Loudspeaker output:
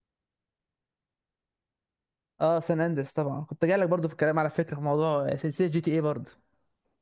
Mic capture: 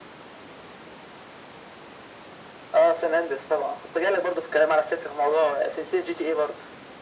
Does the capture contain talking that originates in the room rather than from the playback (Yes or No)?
No